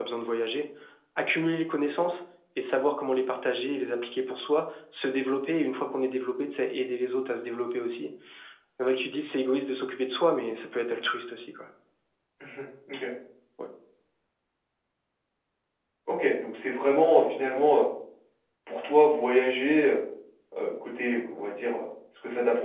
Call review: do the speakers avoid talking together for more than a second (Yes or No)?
Yes